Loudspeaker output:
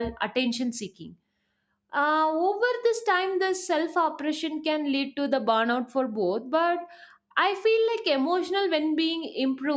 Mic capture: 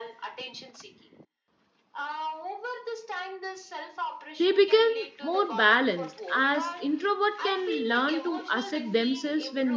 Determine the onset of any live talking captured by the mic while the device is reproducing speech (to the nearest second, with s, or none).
4 s